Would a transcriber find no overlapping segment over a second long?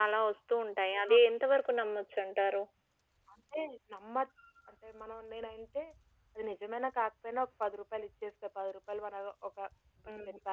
Yes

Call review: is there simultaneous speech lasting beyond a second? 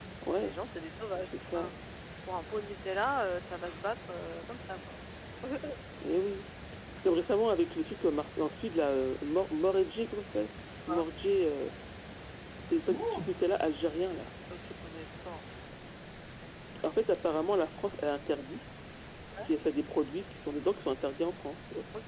No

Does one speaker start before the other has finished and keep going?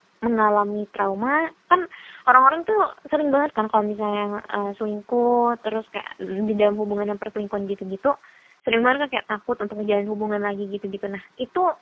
No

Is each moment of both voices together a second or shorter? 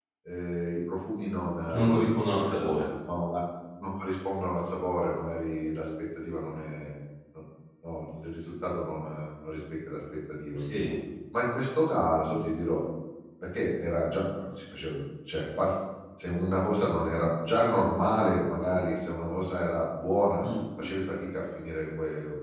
Yes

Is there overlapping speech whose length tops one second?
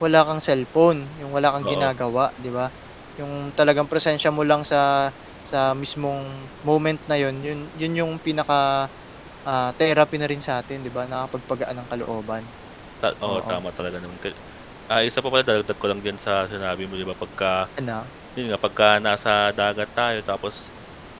No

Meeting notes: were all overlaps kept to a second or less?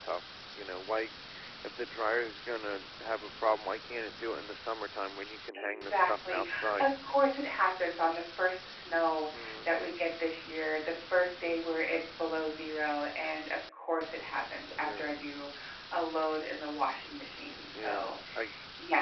No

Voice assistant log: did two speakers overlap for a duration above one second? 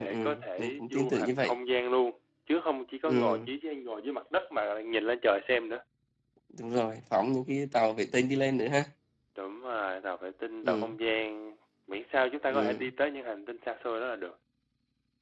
Yes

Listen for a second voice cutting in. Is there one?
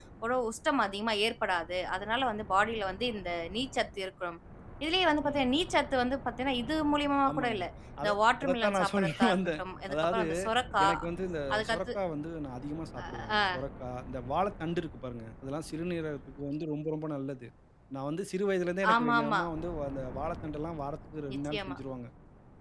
Yes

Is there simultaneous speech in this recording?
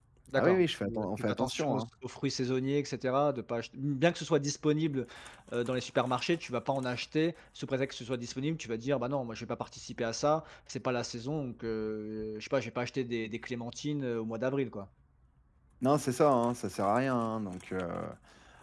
Yes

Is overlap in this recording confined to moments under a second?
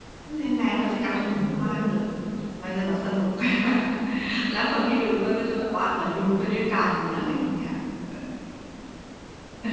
No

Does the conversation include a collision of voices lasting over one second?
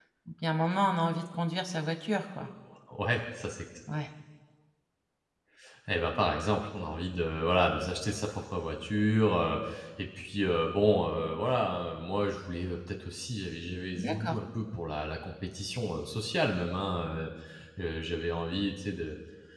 No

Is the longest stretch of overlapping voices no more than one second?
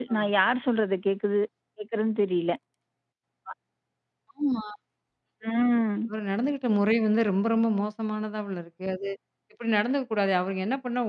Yes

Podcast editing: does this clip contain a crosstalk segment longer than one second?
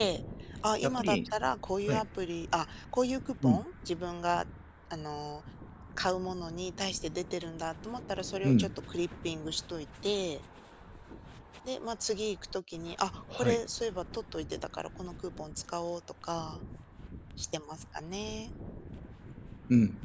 No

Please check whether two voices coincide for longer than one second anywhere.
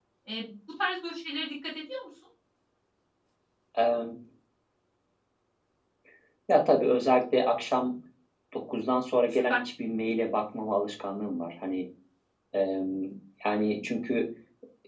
No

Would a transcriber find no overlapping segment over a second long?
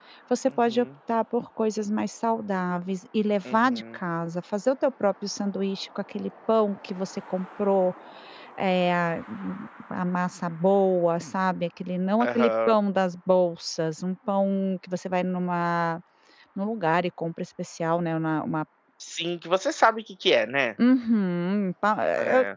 Yes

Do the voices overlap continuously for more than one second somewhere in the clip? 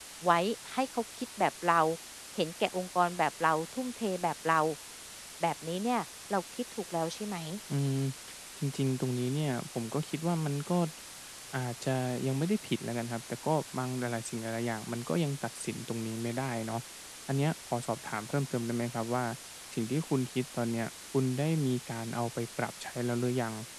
No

